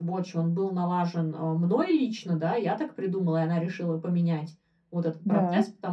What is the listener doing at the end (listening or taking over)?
listening